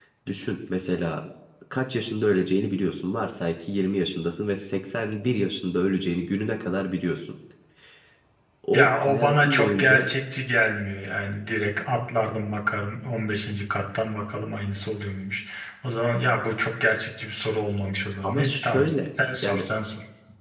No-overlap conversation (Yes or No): No